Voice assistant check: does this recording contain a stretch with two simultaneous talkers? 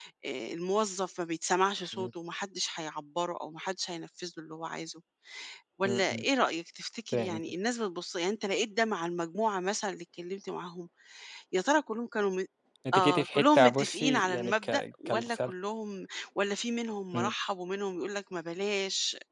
Yes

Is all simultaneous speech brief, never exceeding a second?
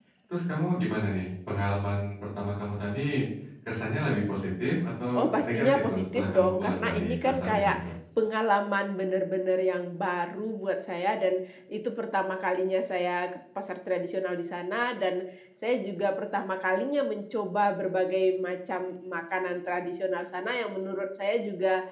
No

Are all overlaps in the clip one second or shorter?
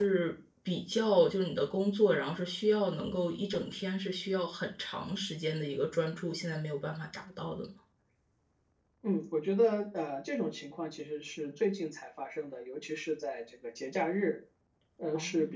Yes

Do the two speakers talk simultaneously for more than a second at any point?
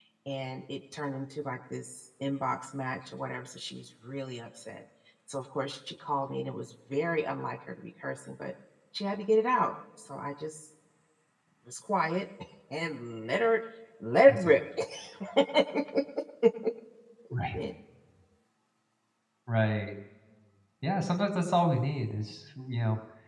No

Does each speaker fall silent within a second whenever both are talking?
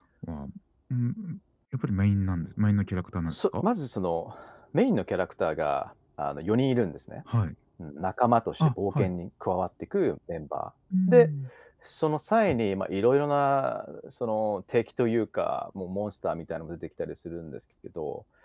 Yes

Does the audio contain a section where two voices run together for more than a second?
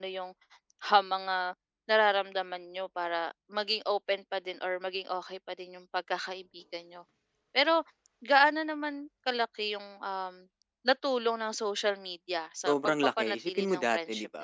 Yes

